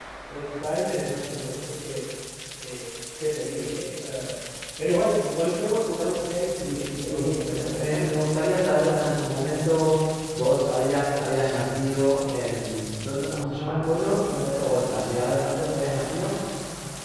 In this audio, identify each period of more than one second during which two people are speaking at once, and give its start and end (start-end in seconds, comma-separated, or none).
6.5-8.1